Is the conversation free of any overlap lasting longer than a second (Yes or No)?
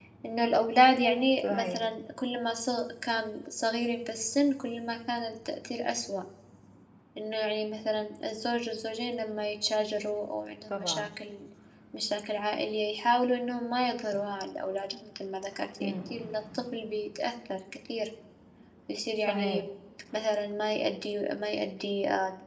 Yes